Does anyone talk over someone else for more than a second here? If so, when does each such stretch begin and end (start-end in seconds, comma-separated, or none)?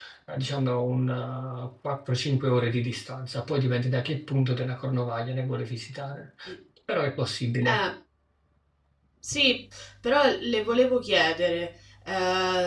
none